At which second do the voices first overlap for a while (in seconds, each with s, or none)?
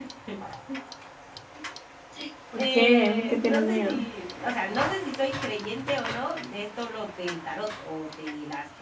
2.6 s